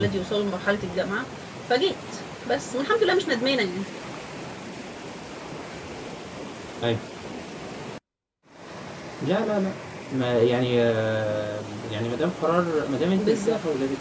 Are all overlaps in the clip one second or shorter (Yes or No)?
Yes